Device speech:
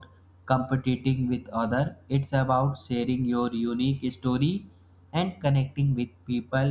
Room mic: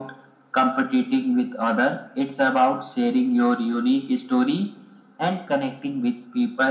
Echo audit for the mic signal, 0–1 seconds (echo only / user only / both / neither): echo only